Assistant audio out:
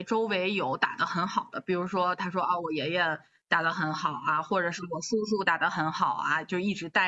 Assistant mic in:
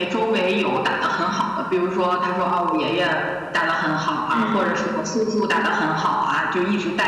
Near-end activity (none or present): present